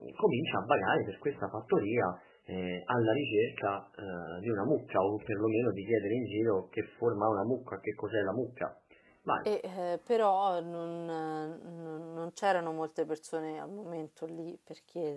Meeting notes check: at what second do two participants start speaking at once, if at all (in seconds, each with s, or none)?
none